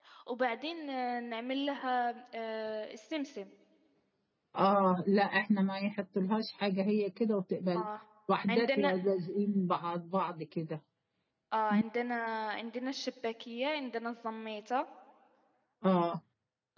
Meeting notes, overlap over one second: none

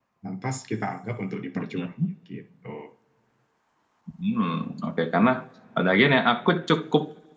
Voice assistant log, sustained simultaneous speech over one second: none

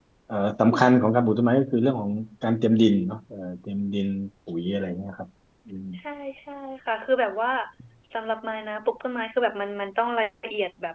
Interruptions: none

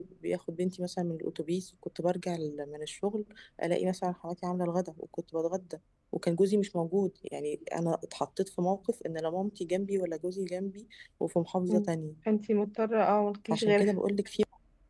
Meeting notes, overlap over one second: none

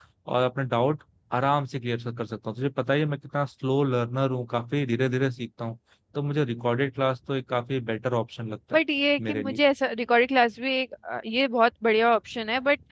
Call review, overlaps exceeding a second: none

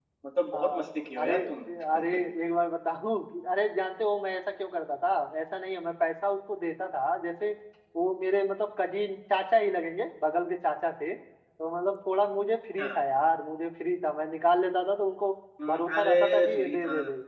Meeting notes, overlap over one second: present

